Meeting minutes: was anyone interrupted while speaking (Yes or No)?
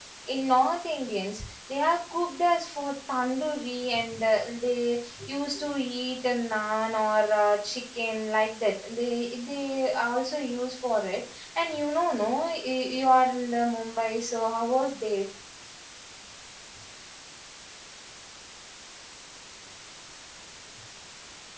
No